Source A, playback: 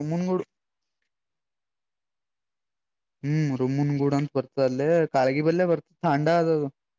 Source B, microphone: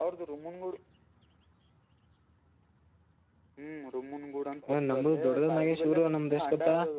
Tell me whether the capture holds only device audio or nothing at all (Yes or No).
No